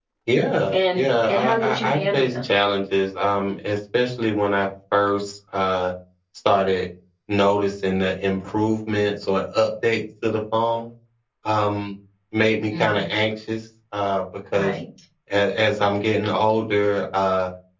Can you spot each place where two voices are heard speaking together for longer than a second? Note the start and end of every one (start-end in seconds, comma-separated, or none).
0.7-2.5